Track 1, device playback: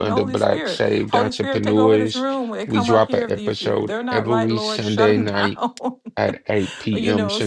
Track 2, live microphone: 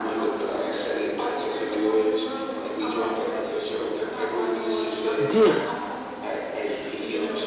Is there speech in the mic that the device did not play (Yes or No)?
Yes